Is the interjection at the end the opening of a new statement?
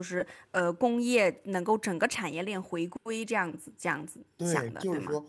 Yes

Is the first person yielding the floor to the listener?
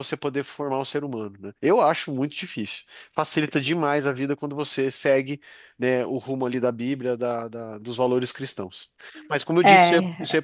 Yes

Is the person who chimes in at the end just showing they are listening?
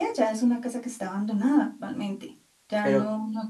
Yes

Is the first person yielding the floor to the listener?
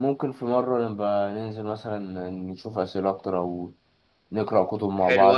Yes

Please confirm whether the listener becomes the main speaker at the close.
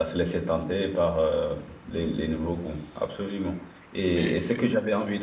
No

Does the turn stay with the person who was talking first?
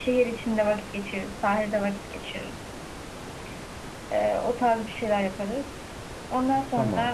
Yes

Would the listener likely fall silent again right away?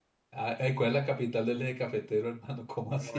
No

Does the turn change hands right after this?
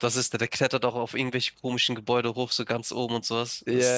Yes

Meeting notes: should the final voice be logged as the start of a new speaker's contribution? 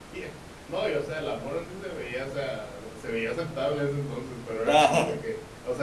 No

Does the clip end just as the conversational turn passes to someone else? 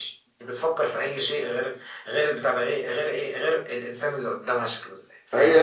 Yes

